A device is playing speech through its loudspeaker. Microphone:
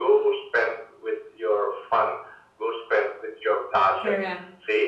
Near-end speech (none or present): present